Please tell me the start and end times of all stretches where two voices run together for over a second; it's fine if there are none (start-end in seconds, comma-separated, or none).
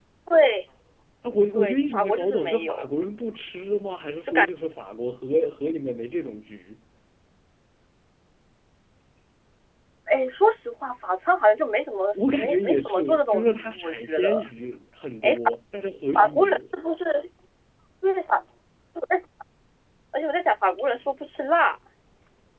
1.5-2.9, 12.2-14.4